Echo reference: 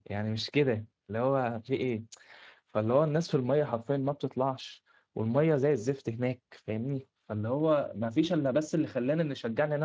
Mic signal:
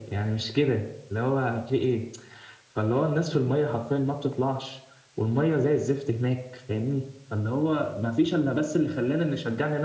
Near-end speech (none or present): none